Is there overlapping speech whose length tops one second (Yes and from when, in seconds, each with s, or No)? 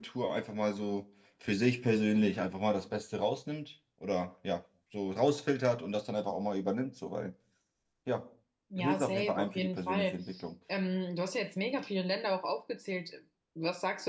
Yes, from 8.8 s